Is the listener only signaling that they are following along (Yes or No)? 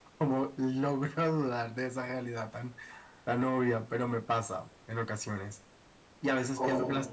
Yes